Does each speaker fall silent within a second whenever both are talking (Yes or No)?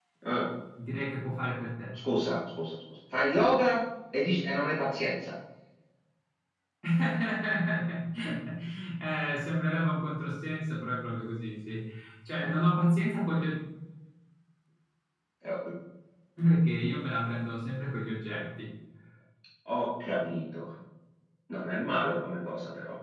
Yes